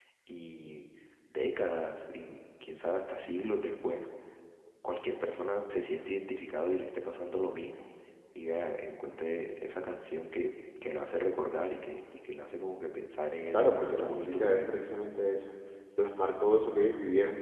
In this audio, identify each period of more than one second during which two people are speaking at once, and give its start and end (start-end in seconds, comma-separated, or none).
13.5-14.8